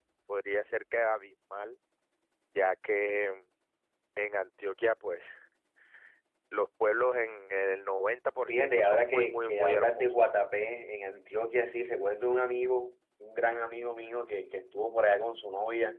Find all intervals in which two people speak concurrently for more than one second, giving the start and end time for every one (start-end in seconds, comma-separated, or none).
8.5-10.1